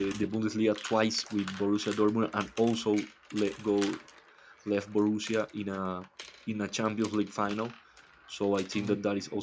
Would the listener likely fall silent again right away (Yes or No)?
Yes